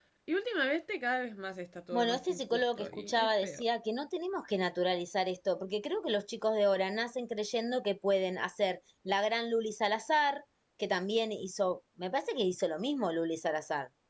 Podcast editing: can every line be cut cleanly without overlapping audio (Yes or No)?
No